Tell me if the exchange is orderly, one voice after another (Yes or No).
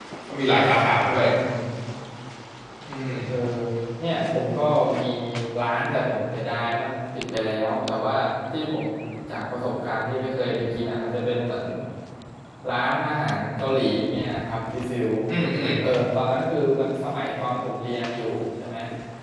Yes